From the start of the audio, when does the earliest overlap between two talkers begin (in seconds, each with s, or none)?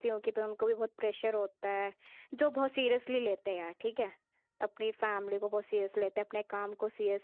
none